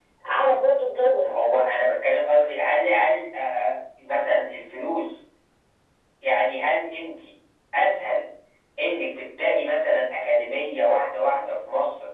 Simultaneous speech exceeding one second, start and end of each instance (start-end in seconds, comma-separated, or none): none